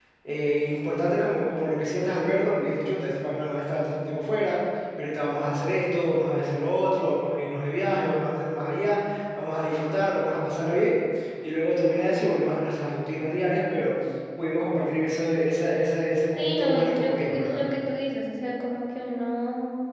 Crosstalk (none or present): present